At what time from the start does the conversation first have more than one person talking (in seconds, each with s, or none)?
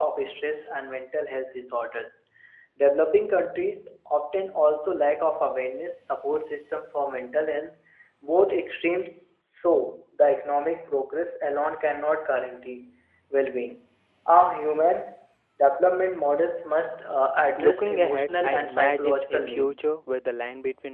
17.6 s